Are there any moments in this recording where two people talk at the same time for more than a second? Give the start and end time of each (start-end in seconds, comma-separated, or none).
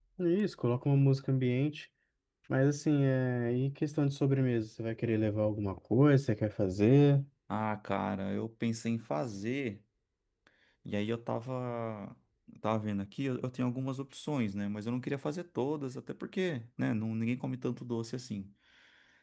none